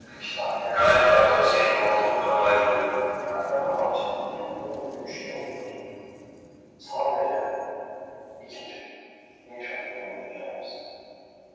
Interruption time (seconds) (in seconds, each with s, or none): 0.7 s